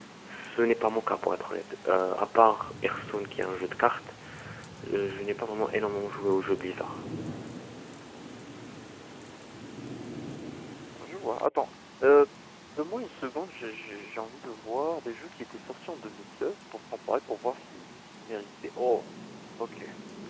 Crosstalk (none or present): none